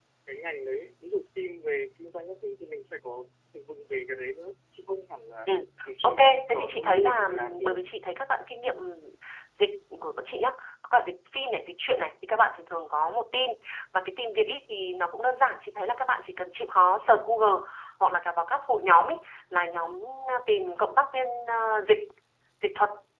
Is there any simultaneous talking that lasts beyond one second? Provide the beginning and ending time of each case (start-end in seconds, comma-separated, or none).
6.0-7.8